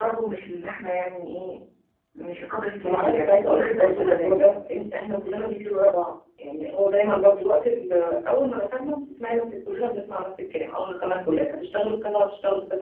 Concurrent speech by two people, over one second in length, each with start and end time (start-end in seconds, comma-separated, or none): 2.8-4.5